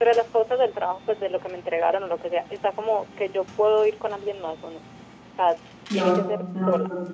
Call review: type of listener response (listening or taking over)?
taking over